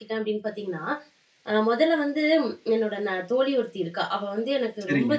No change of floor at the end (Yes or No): Yes